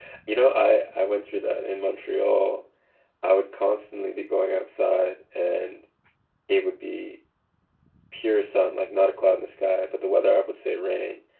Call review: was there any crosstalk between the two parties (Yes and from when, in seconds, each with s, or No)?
No